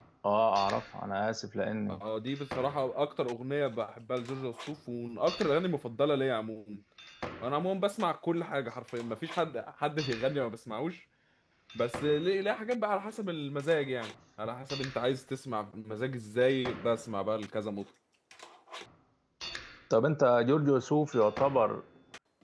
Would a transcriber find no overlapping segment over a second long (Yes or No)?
Yes